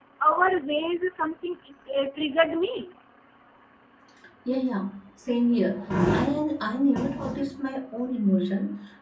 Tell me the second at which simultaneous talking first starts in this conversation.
none

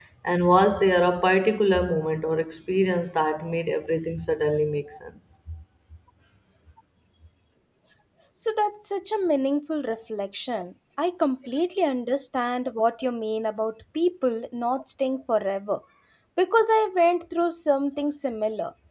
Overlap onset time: none

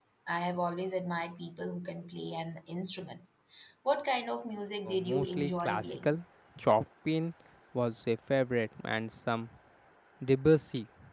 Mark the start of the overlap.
4.9 s

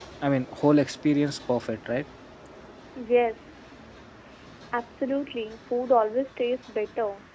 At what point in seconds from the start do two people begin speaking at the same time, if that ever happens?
none

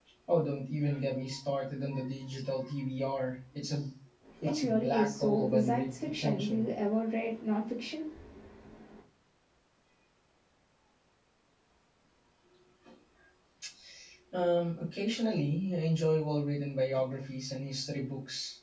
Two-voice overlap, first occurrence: 4.4 s

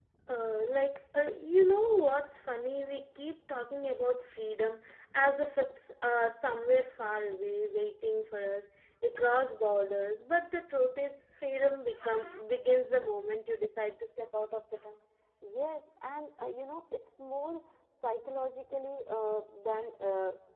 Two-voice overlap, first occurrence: none

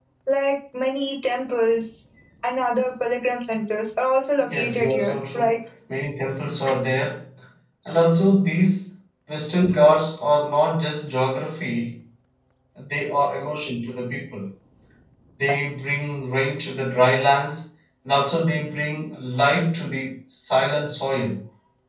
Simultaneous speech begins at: 4.4 s

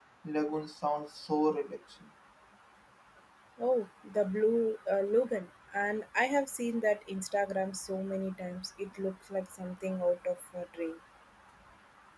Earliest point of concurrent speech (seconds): none

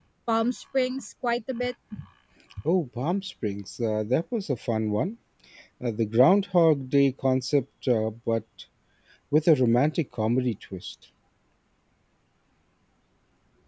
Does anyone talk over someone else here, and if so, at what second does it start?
none

